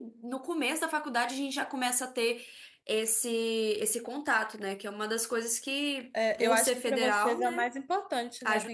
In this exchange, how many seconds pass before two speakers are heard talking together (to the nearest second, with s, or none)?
6 s